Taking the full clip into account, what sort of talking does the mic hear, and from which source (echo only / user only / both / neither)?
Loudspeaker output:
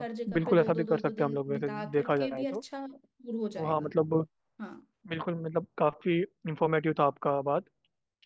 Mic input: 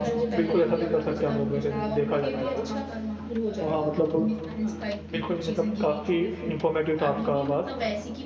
both